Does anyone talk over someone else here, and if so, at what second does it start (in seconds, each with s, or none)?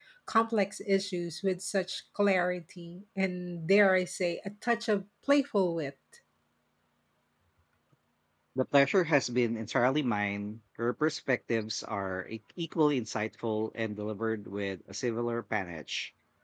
none